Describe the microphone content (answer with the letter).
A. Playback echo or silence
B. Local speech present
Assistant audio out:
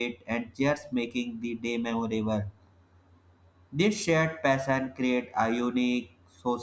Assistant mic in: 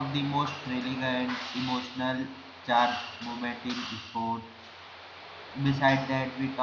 B